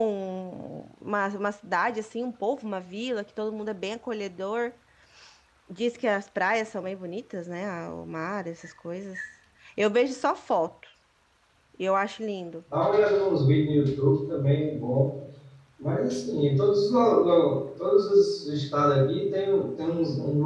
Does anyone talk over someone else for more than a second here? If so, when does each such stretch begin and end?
none

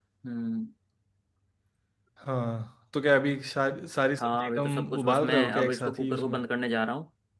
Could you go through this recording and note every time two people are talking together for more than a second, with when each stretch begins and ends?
4.2-6.4

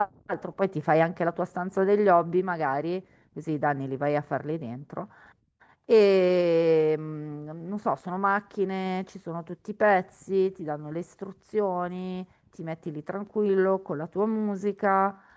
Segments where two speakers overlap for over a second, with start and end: none

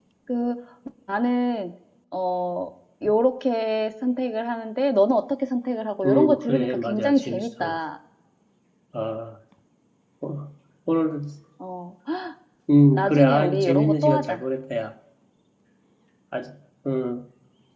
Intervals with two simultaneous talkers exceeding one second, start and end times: 6.0-7.8, 12.9-14.4

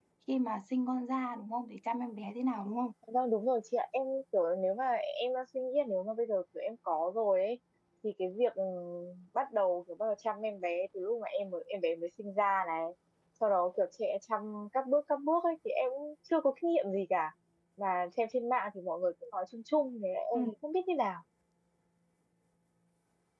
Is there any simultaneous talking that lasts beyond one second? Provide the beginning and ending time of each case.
none

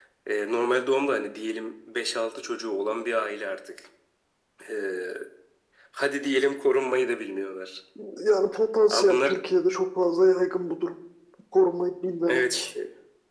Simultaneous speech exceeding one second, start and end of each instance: none

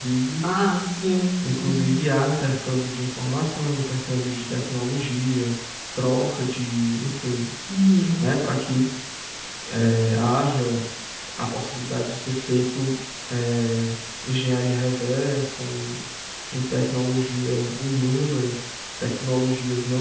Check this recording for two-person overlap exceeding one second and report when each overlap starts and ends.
none

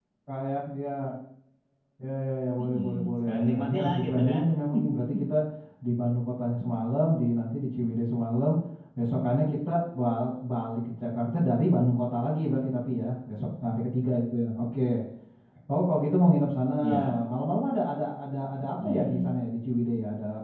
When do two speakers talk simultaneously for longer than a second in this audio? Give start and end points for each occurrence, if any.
2.6-4.5

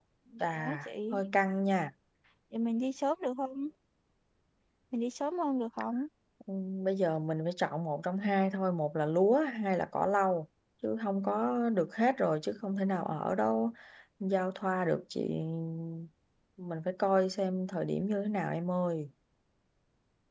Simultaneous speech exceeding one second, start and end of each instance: none

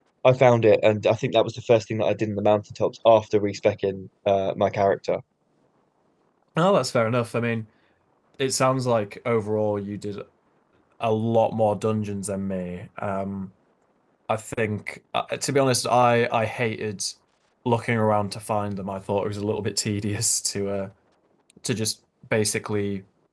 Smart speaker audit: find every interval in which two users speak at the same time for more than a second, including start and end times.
none

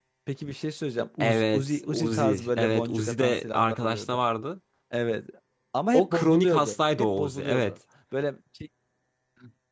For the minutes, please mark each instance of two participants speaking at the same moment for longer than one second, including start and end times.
1.2-4.2, 5.9-7.7

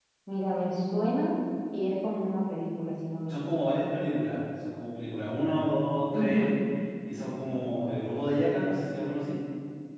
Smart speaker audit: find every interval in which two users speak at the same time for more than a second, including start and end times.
none

